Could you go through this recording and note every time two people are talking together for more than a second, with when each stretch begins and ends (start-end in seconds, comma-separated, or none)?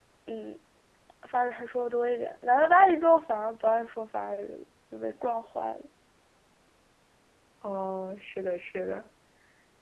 none